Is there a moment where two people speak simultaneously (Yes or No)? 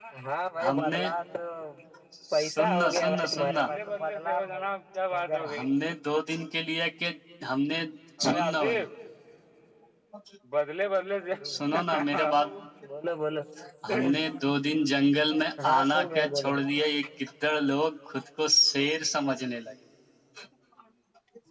Yes